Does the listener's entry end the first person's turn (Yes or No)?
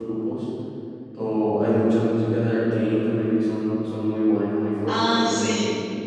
Yes